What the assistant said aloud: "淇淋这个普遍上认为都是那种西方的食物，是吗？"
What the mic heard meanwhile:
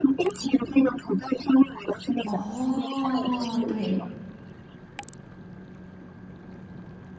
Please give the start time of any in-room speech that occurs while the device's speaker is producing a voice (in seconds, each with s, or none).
2.2 s